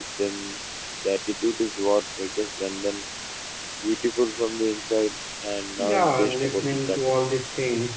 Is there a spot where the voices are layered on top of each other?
Yes, from 5.8 s

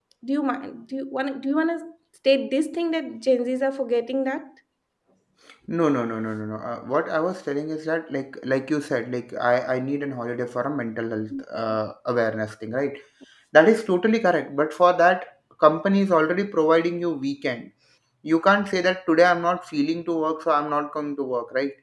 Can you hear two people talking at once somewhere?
No

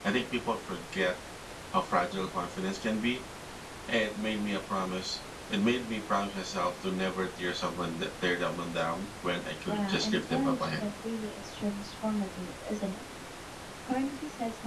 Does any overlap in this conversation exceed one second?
Yes, from 9.7 s

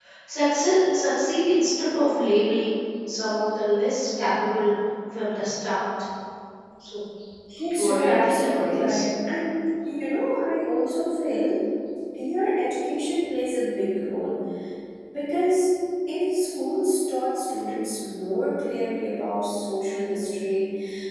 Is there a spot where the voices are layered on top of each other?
Yes, from 7.8 s

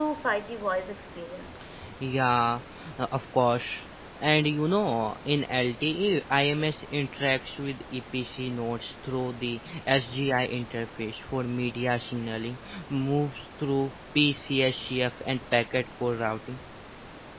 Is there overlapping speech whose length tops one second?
No

